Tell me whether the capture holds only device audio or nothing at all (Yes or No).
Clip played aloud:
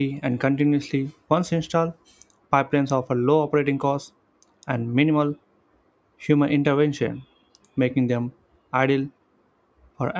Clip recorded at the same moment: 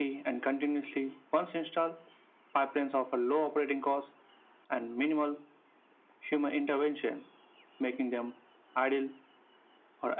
Yes